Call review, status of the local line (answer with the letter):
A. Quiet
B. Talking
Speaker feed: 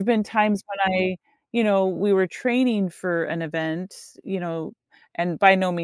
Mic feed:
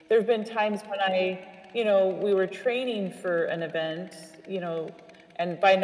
A